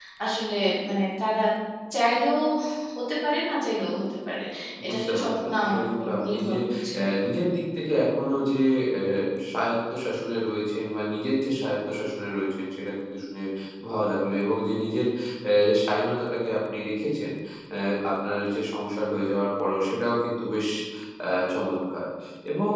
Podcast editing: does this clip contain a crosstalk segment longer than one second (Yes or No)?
Yes